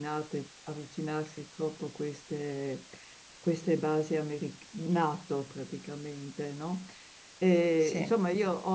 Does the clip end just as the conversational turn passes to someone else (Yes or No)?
No